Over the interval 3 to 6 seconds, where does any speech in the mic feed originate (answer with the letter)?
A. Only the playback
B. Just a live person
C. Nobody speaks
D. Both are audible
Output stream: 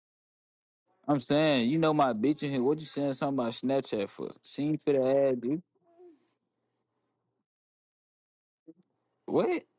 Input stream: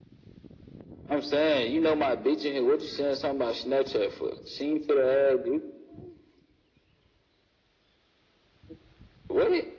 A